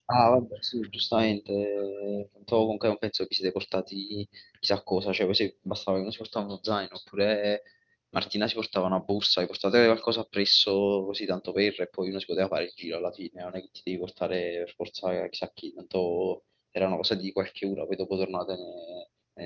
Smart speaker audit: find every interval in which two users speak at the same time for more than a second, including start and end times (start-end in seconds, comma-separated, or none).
none